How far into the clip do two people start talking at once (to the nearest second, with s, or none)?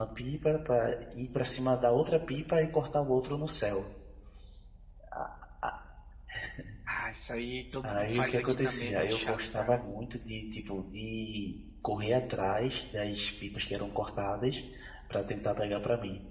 8 s